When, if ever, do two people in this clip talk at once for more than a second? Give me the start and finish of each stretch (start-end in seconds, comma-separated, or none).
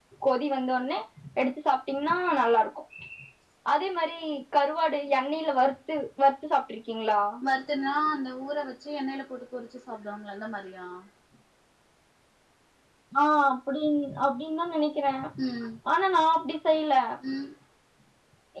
none